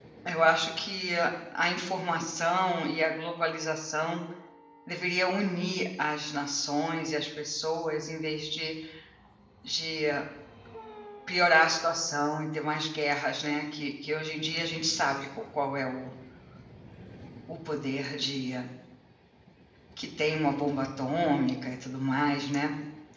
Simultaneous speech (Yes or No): No